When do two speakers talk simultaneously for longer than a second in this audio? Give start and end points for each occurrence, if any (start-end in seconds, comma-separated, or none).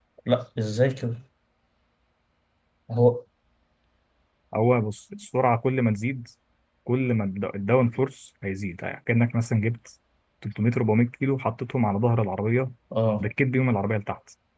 none